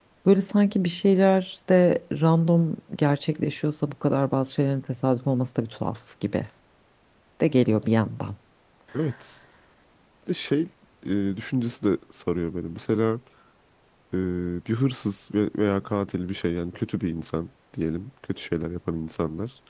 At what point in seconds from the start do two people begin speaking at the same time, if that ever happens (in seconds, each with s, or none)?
none